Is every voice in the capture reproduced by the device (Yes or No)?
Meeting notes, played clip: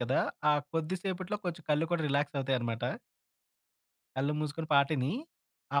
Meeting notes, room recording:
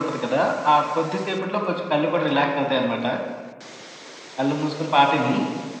Yes